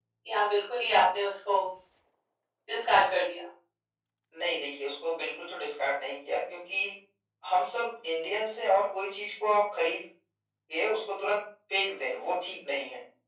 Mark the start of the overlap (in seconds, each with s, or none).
none